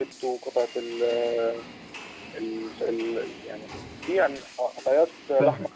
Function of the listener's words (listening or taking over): taking over